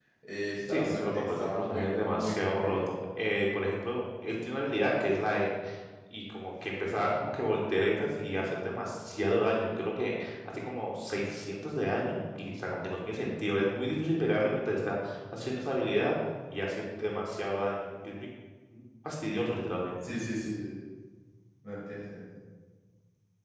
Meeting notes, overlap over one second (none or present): present